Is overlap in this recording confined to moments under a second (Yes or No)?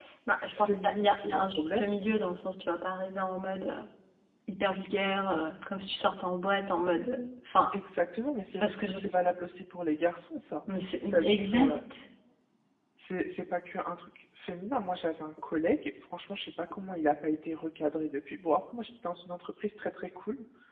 No